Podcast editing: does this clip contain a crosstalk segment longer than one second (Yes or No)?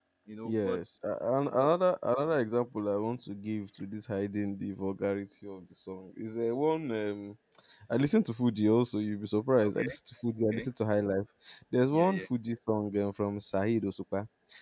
No